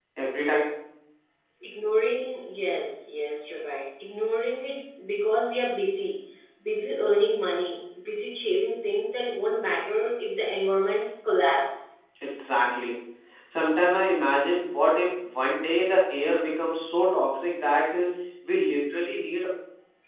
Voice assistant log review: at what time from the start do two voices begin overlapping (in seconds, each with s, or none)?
none